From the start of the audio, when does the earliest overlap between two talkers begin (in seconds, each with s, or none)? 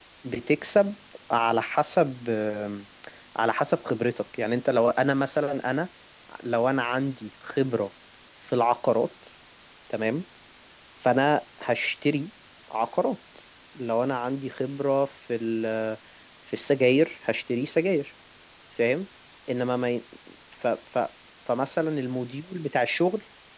none